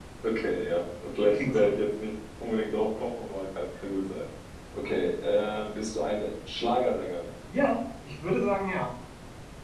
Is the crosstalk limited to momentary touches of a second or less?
Yes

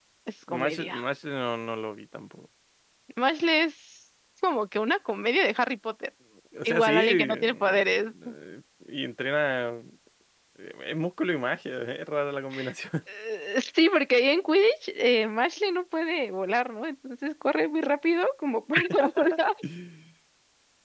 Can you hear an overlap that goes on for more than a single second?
Yes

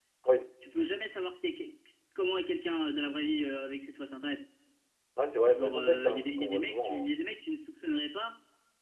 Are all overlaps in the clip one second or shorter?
No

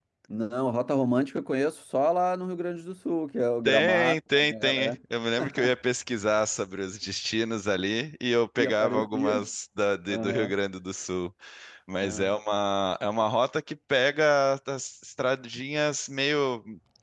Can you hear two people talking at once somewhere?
Yes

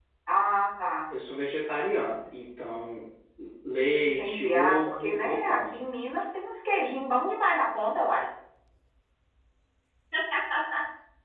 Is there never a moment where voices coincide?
No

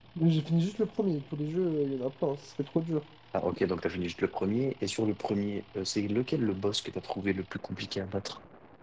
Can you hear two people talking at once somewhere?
No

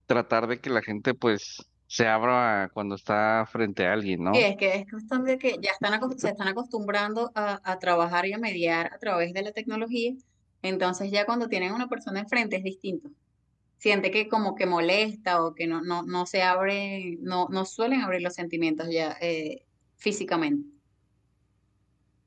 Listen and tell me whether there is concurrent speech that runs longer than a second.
No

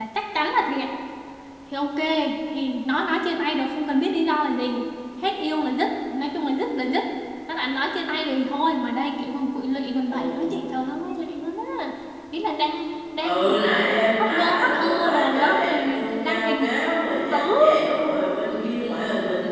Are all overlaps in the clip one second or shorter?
No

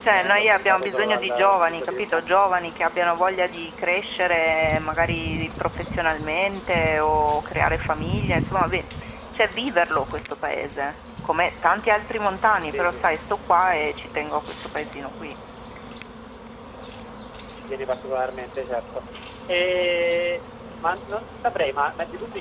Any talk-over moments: Yes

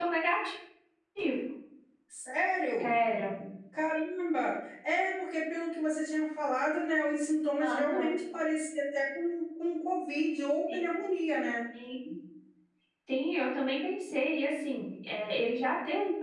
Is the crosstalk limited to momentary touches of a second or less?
Yes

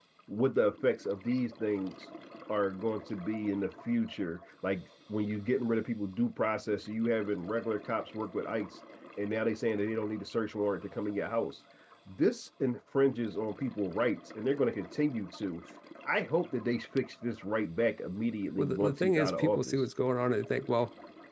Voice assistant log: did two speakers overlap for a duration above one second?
Yes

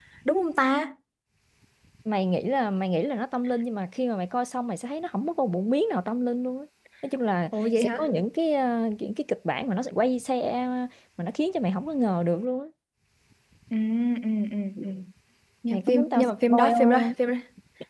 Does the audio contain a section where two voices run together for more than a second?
Yes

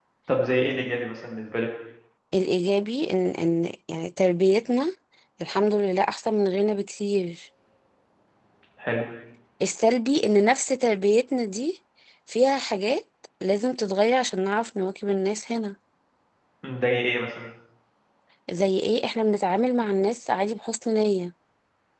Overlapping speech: No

